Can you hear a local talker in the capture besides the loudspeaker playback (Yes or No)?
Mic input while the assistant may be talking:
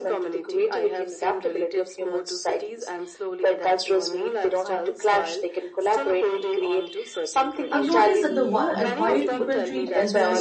Yes